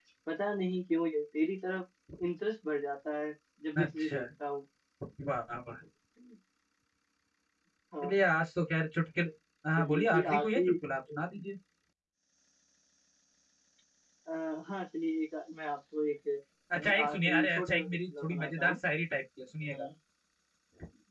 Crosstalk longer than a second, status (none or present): present